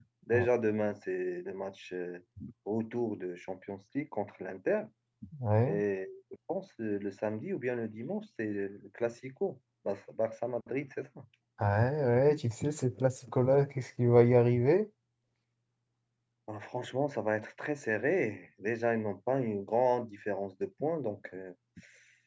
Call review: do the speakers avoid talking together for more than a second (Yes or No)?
Yes